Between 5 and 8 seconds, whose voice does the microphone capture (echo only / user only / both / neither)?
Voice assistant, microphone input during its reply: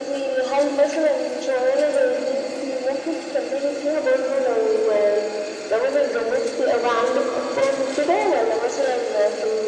echo only